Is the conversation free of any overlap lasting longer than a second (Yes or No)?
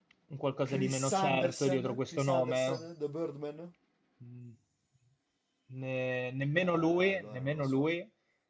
No